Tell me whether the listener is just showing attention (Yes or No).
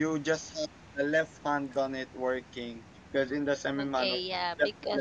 No